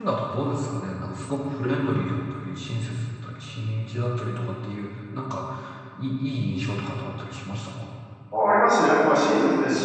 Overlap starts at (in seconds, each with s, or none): none